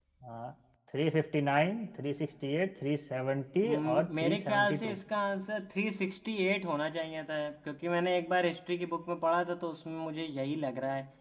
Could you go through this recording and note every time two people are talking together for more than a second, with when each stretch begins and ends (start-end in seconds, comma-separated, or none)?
3.6-5.0